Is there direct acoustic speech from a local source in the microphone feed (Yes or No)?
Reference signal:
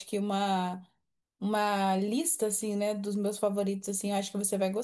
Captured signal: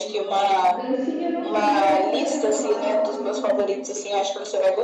Yes